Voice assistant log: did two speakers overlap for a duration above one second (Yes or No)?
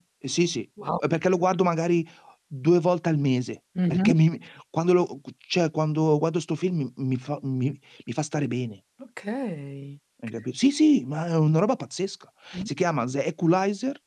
No